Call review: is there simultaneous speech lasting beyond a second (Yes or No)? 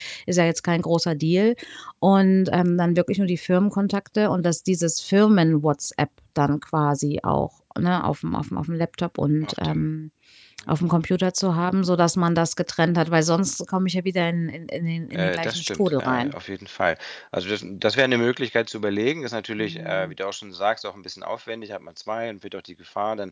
Yes